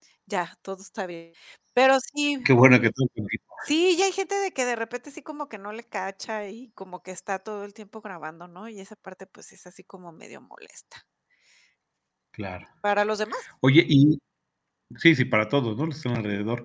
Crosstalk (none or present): none